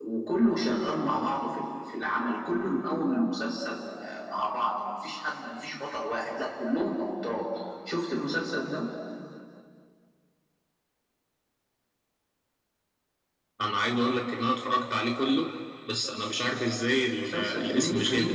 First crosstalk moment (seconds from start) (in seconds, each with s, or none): 17.1 s